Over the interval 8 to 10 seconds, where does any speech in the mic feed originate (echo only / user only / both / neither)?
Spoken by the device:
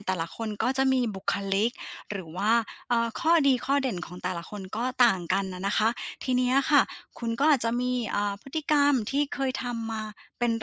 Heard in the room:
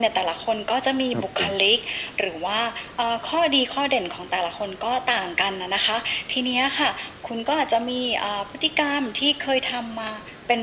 echo only